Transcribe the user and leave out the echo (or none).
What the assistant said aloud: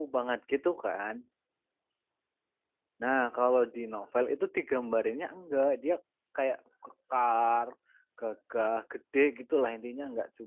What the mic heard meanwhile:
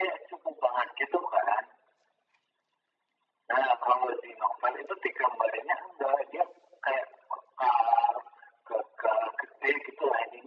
none